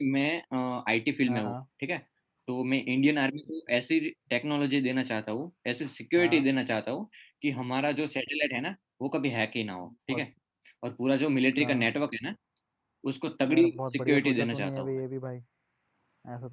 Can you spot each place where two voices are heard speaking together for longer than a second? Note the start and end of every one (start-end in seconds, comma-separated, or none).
13.5-15.0